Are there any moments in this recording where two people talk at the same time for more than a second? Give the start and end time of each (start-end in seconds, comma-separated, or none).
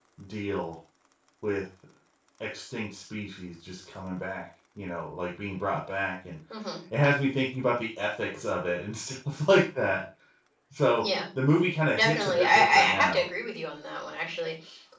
11.9-13.2